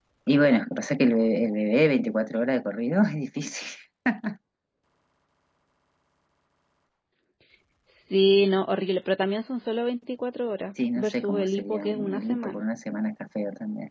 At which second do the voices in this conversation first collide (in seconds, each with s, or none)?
10.8 s